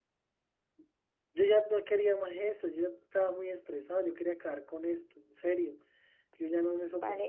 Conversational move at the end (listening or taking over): taking over